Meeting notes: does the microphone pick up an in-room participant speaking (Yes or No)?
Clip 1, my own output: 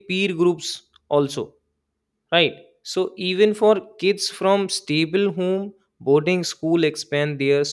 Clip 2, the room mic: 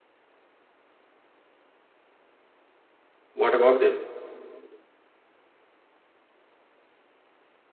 Yes